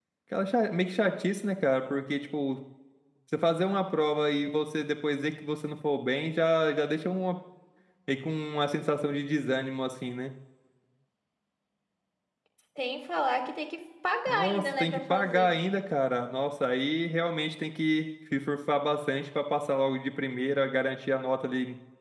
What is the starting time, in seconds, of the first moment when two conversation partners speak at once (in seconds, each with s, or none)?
14.3 s